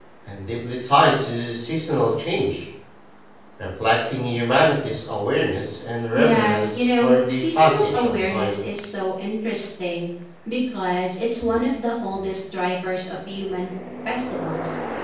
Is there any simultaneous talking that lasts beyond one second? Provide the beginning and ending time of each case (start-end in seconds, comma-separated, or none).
6.1-8.6